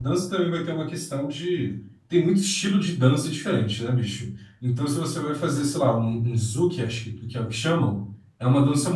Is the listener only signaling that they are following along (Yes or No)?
Yes